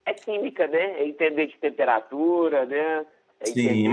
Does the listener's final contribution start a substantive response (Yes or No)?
Yes